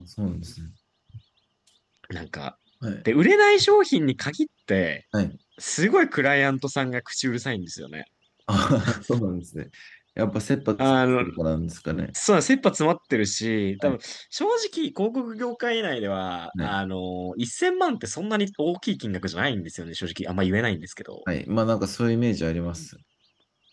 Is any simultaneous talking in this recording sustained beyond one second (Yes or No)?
No